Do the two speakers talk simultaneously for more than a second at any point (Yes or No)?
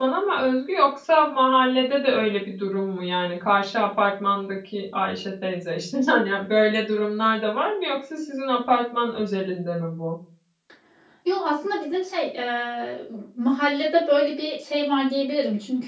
No